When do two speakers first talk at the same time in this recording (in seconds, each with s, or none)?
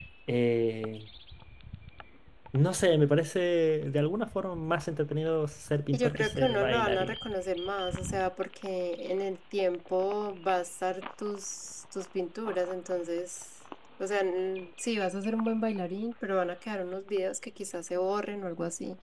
5.9 s